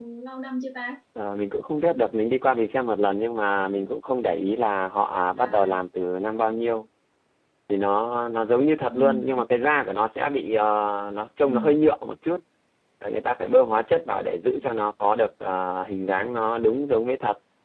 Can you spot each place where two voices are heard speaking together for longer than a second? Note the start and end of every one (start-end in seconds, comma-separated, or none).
none